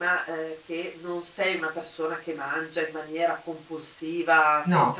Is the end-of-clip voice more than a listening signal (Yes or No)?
No